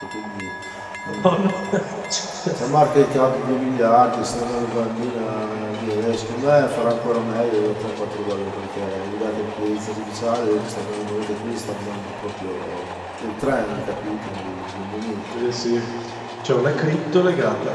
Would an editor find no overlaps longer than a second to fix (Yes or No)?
Yes